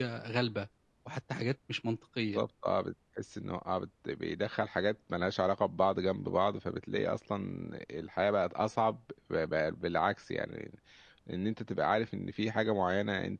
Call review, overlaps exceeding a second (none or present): none